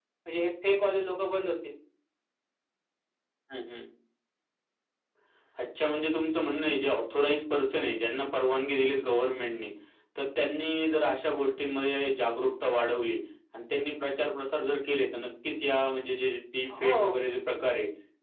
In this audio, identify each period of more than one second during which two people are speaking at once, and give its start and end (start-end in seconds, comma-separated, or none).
none